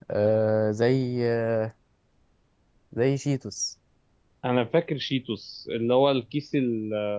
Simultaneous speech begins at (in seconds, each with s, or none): none